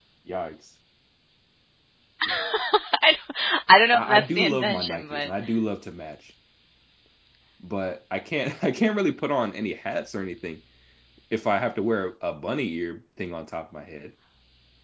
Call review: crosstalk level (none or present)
present